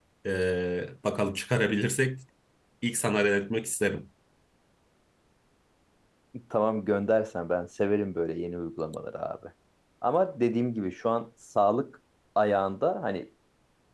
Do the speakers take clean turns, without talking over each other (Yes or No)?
Yes